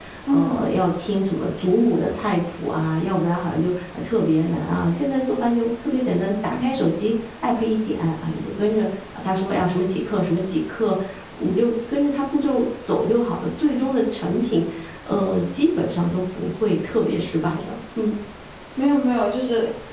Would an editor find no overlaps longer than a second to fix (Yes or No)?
Yes